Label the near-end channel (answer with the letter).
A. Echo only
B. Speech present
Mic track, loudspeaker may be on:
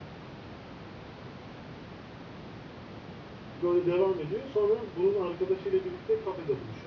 B